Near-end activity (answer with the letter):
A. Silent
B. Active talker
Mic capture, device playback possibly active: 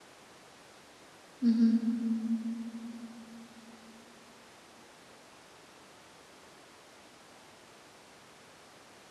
B